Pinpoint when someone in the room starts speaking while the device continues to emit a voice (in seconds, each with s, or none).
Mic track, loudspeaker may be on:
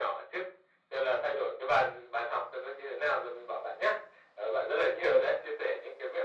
none